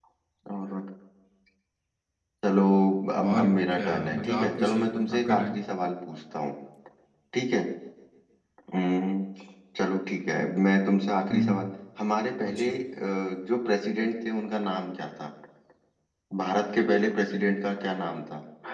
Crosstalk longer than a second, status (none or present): present